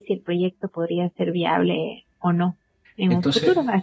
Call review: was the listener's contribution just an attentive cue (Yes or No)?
No